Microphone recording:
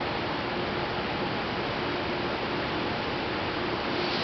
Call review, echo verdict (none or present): none